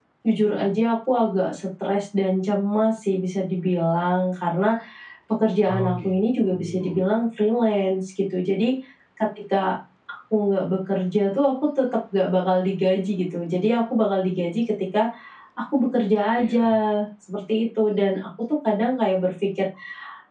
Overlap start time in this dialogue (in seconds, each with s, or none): 5.7 s